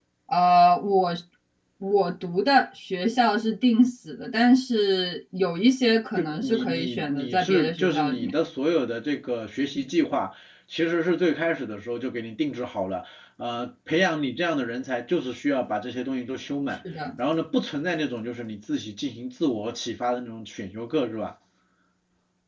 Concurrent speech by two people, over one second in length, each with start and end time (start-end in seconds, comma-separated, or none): 6.2-8.3